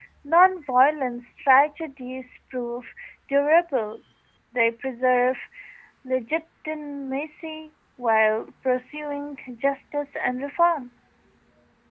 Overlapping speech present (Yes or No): No